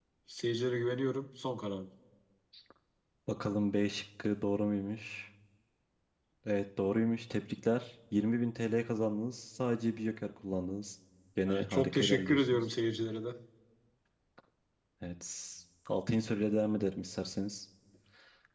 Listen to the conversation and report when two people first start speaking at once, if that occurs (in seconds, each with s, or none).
11.4 s